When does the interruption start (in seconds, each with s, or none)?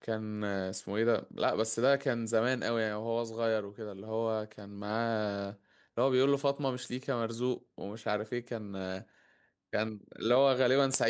none